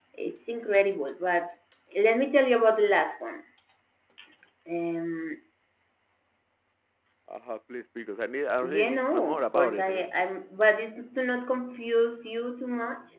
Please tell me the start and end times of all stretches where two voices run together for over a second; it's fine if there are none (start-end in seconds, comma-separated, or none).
8.6-10.0